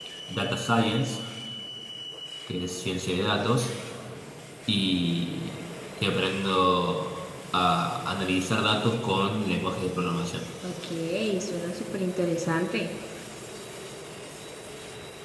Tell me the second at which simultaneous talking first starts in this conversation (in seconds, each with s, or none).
none